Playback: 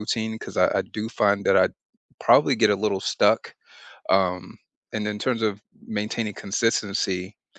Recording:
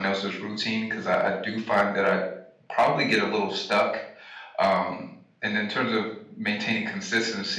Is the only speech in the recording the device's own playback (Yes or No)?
Yes